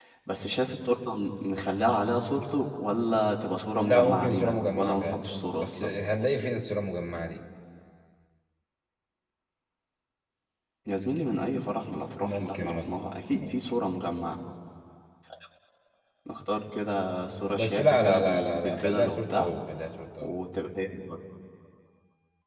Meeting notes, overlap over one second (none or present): present